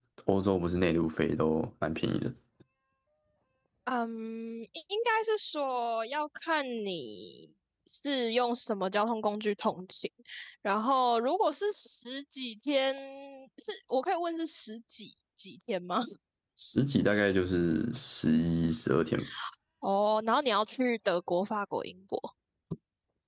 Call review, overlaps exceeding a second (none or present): none